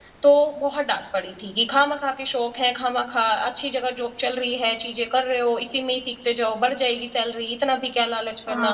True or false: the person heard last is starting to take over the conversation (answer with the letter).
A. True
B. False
A